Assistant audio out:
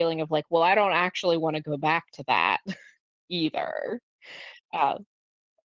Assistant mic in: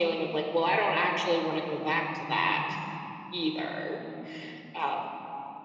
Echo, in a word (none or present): present